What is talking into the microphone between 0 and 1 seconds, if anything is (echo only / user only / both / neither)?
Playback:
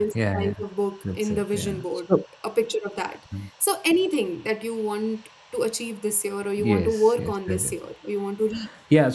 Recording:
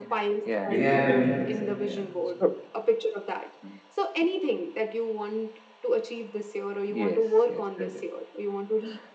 both